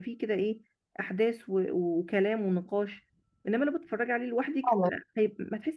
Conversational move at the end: listening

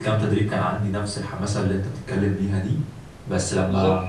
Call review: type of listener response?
listening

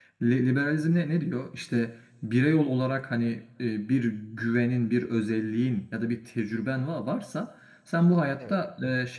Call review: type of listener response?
listening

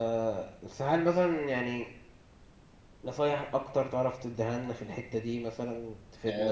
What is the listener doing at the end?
taking over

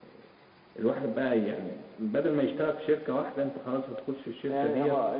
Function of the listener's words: taking over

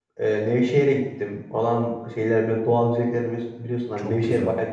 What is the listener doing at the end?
listening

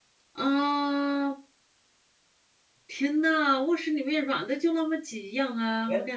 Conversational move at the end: taking over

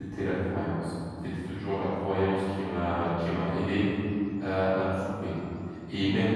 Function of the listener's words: listening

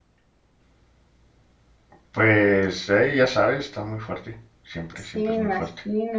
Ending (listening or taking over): taking over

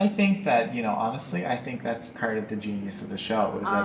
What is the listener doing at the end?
listening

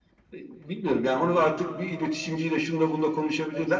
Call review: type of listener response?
listening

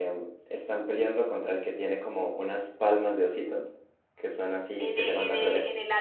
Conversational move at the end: taking over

